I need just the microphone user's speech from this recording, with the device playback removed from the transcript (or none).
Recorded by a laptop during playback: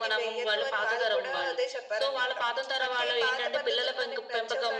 none